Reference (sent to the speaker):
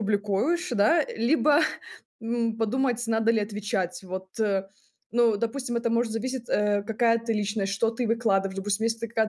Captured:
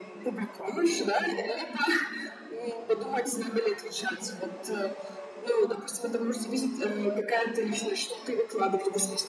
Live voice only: Мгм.

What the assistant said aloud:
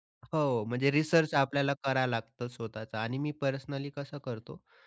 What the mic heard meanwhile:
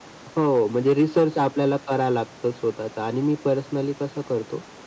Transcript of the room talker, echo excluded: none

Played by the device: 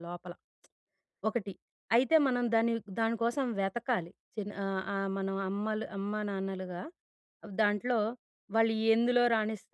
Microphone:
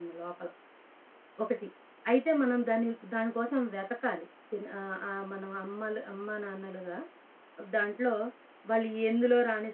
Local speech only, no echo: none

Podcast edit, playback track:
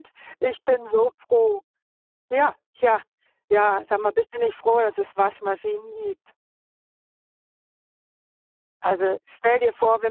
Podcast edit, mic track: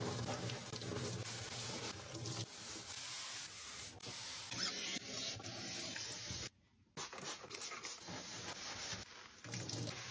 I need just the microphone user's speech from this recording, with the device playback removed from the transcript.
none

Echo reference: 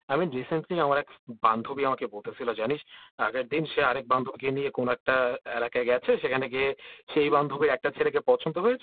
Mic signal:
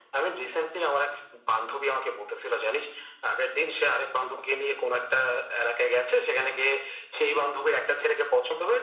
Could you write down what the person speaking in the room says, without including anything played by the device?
none

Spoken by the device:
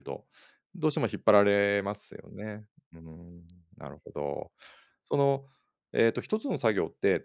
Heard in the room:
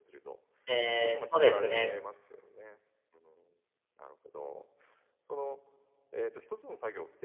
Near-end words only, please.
ええ、そうですね

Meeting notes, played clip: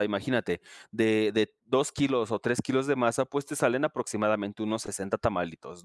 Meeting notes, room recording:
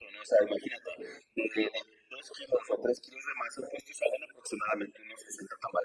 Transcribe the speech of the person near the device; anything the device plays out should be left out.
none

